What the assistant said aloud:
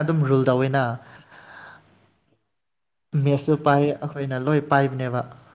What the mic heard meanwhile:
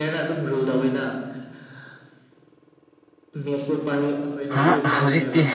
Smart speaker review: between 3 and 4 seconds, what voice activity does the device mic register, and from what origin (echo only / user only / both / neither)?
echo only